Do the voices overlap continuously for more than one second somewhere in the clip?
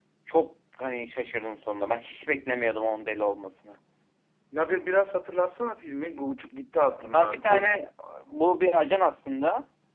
No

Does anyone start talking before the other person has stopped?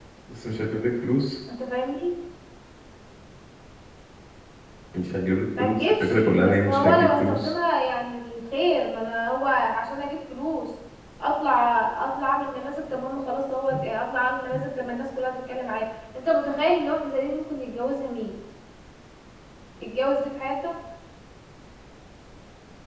Yes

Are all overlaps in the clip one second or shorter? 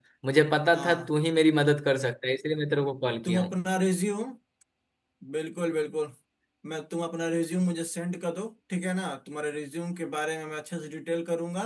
Yes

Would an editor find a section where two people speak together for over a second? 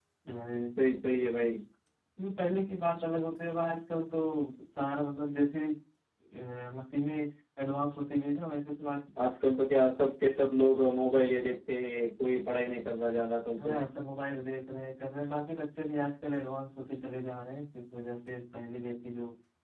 No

